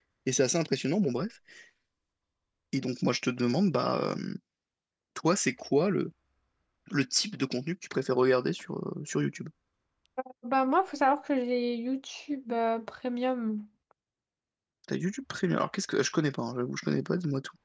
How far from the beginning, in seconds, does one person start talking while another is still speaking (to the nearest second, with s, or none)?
none